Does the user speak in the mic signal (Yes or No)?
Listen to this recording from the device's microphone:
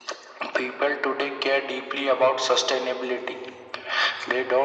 No